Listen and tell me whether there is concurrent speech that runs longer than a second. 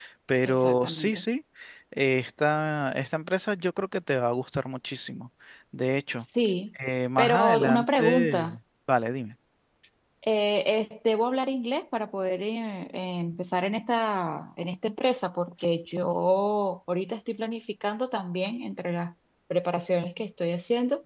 Yes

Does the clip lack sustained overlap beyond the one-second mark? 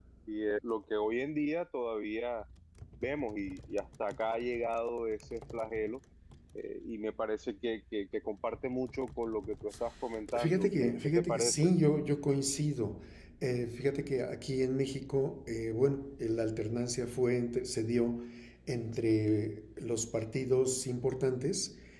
No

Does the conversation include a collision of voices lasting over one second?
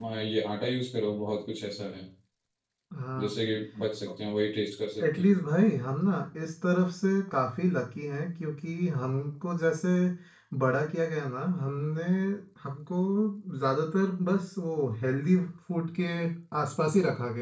No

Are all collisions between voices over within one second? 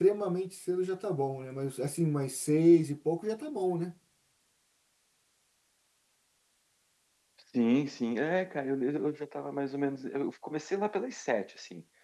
Yes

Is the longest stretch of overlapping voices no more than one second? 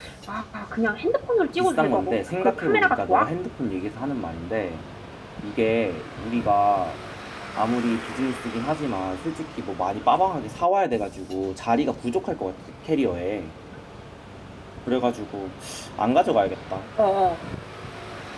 No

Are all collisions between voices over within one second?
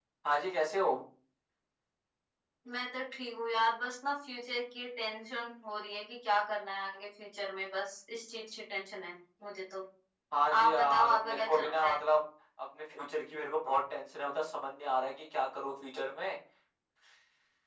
No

